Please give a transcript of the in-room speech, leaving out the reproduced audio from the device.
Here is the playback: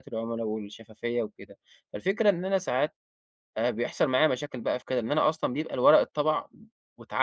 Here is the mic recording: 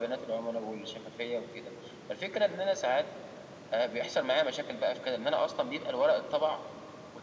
none

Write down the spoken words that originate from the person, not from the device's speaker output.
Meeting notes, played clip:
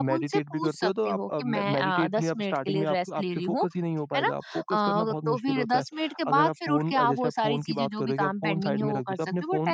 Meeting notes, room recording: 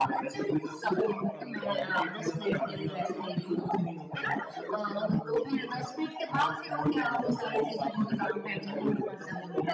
none

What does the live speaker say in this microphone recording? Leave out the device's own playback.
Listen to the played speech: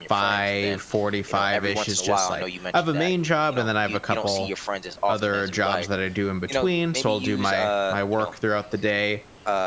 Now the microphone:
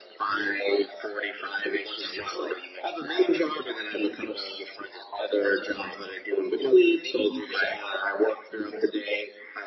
none

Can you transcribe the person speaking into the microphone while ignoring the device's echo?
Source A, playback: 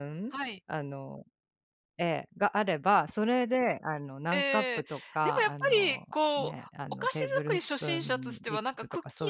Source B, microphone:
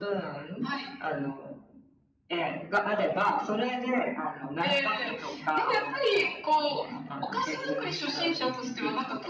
none

